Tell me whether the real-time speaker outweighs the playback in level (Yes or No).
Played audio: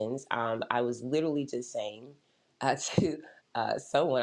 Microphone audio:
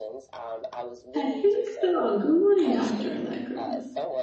Yes